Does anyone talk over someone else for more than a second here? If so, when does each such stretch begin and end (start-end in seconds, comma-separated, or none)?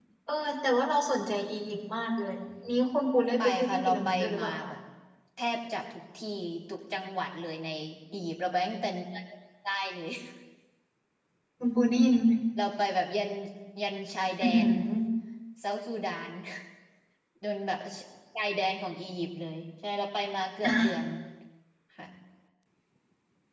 3.4-4.7